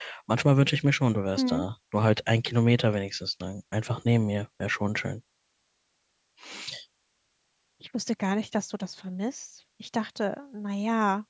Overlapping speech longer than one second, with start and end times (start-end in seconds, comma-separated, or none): none